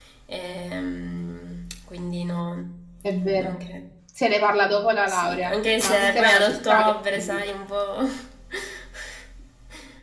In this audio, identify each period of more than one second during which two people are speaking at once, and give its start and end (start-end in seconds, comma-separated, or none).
5.1-7.4